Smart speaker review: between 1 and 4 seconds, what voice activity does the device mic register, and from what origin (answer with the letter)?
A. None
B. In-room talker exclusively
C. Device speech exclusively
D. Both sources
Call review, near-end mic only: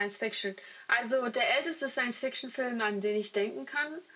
C